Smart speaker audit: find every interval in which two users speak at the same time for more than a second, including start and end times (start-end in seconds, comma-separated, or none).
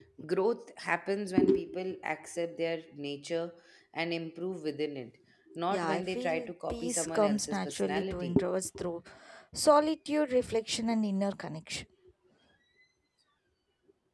5.7-8.4